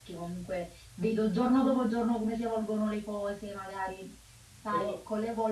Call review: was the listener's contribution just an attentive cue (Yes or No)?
Yes